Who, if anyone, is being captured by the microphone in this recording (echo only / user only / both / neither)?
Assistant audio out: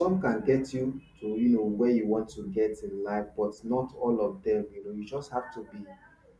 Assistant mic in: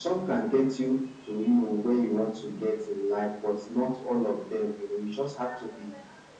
echo only